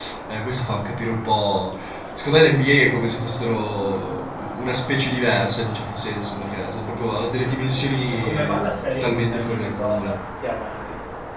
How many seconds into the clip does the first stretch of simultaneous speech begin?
8.1 s

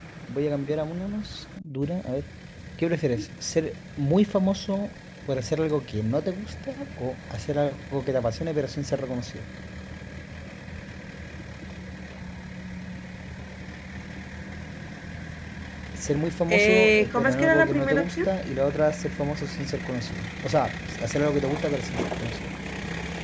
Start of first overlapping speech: 16.5 s

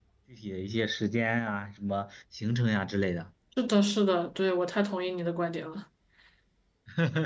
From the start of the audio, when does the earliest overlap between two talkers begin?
none

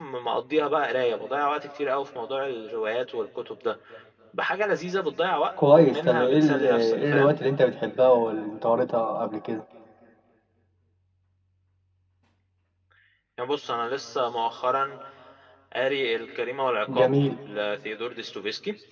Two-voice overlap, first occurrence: 5.8 s

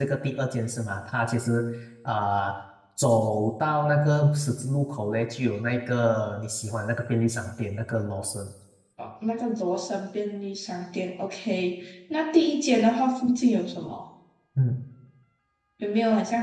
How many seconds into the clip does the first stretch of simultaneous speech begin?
none

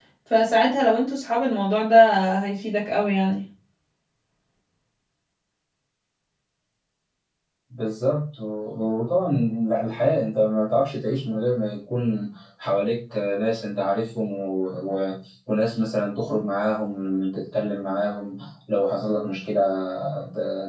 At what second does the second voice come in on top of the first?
none

